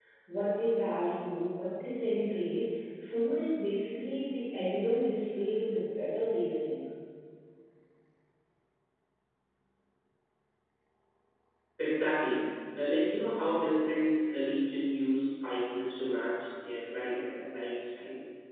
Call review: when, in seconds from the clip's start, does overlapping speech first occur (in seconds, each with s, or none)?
none